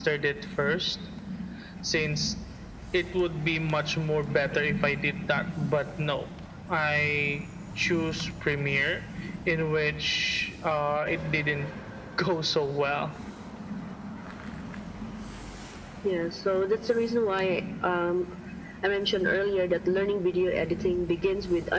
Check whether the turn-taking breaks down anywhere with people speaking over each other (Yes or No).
No